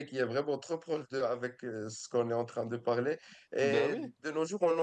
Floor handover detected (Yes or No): No